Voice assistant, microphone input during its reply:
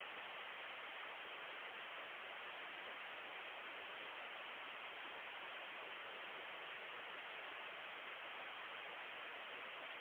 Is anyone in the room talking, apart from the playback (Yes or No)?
No